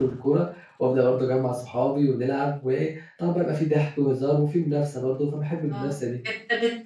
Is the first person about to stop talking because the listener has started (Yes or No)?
Yes